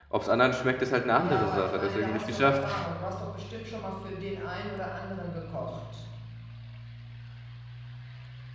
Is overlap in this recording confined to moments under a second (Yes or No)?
No